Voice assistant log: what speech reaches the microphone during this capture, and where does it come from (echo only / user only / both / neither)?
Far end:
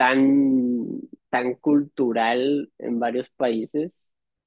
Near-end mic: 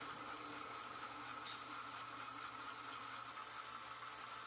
neither